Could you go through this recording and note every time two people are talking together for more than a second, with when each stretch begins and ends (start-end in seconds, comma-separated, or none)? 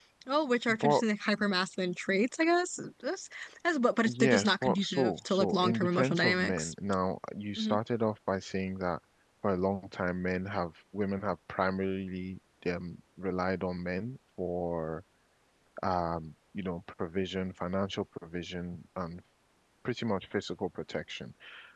4.0-6.7